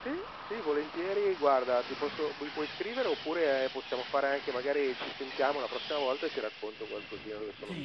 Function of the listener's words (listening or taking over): taking over